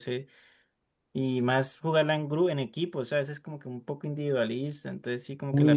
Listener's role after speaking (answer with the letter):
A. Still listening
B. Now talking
B